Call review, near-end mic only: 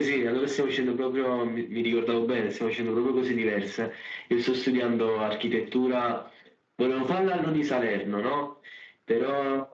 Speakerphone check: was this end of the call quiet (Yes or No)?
Yes